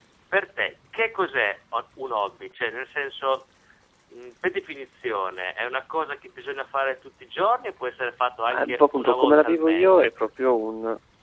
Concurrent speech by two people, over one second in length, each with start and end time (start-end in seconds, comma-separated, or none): 8.5-10.0